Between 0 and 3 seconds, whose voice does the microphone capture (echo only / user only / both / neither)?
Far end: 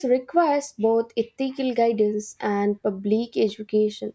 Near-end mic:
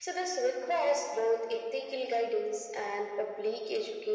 echo only